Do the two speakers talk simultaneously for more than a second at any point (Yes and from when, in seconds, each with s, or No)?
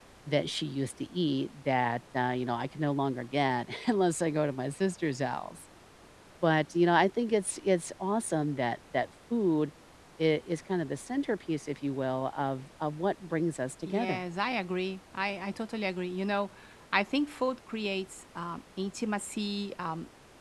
No